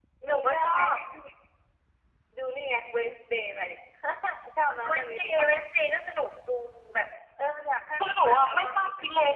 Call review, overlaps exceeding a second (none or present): present